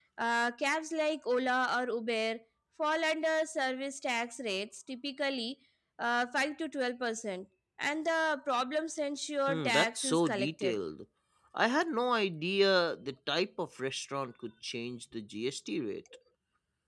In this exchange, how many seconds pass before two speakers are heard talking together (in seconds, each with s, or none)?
9.5 s